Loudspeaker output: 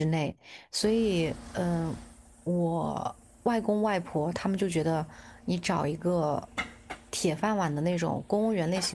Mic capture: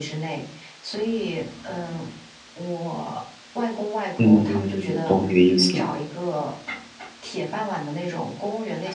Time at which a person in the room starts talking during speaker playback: 4.2 s

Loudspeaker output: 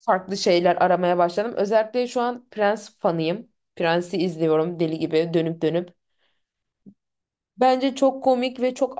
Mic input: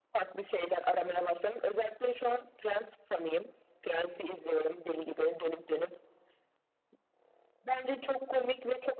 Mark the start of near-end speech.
none

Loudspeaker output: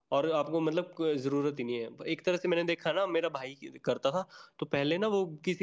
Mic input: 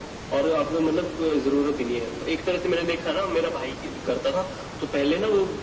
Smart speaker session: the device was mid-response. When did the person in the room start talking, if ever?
none

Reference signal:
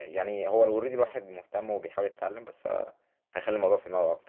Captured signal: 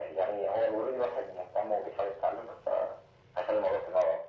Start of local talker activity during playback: none

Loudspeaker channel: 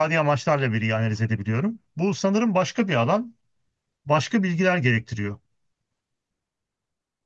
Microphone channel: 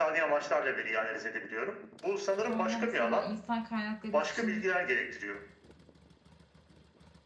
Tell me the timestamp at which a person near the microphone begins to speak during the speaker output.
2.4 s

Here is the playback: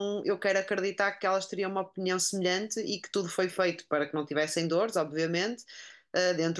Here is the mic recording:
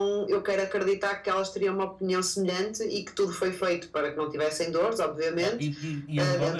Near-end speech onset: 5.4 s

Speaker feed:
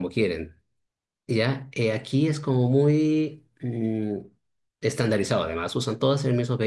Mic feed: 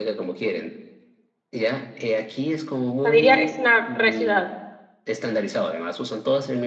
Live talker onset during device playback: 3.0 s

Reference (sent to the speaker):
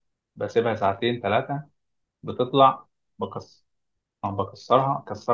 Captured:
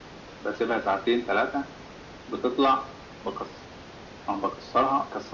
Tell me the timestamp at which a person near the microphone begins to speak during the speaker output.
none

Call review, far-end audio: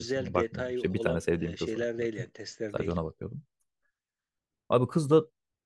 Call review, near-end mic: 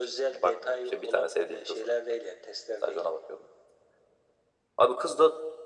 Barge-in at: none

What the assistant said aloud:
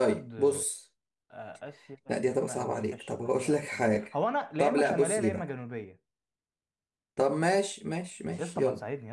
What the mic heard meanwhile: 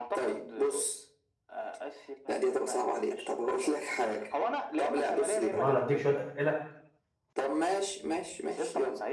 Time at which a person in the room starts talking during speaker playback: 5.5 s

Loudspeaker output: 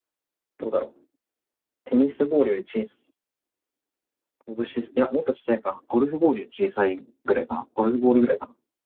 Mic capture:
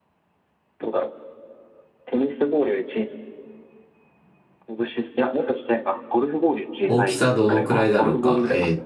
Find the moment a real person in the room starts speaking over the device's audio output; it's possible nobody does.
6.8 s

